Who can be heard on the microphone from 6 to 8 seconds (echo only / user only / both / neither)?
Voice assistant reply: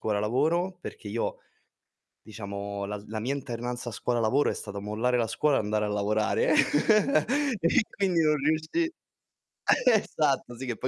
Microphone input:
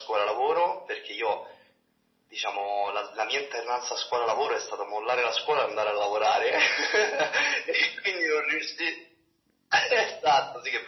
echo only